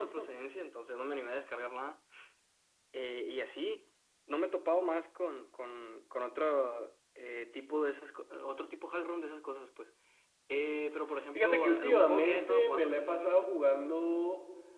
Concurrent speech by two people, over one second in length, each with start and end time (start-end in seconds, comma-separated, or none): 11.3-13.5